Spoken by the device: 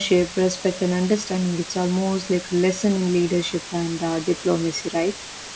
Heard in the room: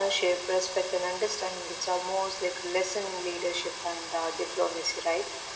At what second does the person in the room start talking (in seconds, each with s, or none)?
none